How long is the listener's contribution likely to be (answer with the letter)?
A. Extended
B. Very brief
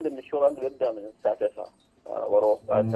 B